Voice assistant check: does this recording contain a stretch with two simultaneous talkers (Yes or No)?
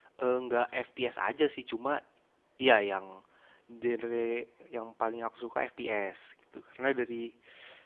No